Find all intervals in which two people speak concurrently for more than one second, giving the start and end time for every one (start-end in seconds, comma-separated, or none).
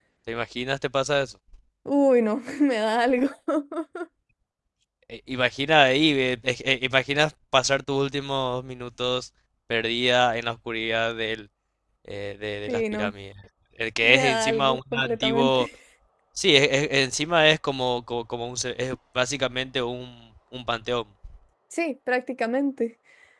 14.0-15.7